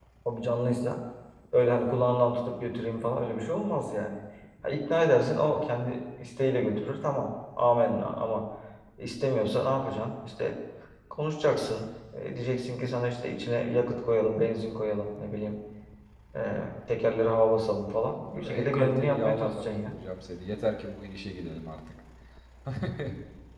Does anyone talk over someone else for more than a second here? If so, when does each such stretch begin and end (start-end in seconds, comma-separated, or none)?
18.4-19.9